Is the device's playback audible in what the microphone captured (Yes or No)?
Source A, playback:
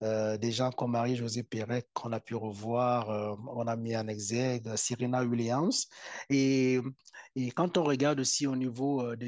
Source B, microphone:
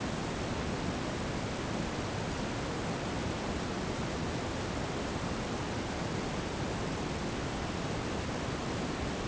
No